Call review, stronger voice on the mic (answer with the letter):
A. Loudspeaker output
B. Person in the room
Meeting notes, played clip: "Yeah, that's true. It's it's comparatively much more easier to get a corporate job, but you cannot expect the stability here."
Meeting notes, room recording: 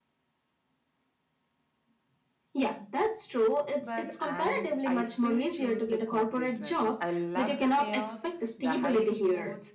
A